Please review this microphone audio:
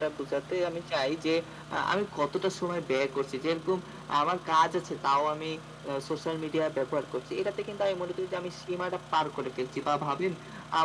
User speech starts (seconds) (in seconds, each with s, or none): none